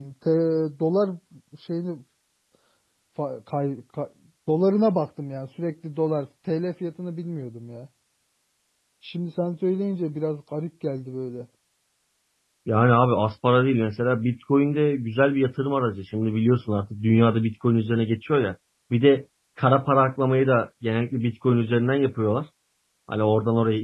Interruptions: none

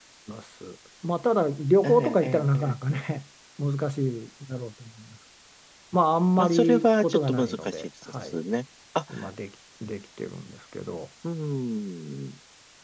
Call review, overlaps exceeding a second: present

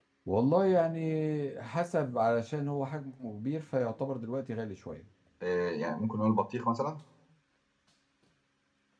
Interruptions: none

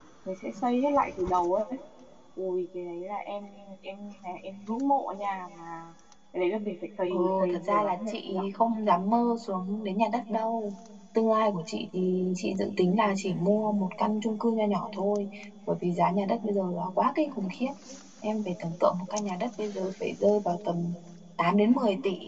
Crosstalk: present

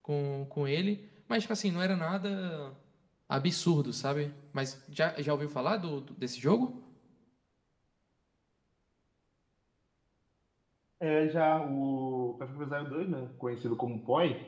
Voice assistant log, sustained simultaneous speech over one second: none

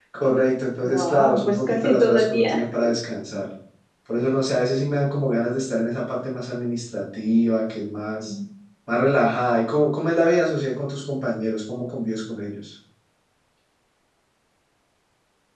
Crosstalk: present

